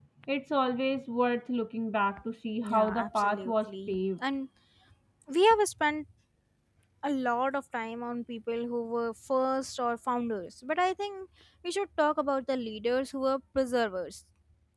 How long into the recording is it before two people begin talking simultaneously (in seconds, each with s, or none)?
2.6 s